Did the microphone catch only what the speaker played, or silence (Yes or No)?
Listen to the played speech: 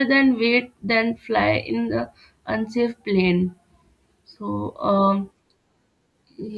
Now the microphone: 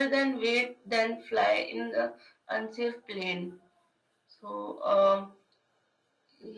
Yes